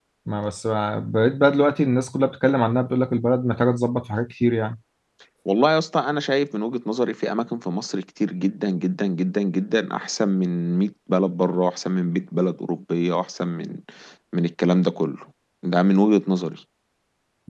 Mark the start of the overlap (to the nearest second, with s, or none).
none